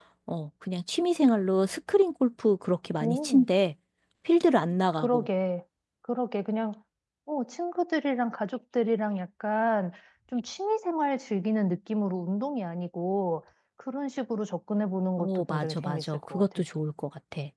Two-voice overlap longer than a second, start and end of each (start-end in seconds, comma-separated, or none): 15.2-16.6